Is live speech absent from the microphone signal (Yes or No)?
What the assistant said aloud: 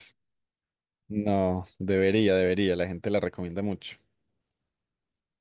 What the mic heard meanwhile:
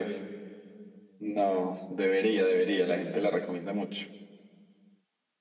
Yes